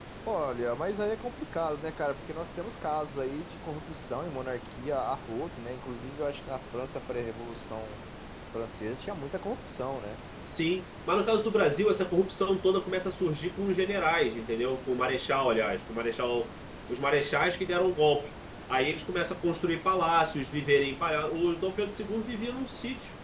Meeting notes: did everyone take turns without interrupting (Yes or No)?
Yes